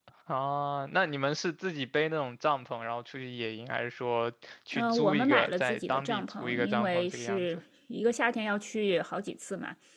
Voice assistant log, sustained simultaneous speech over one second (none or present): present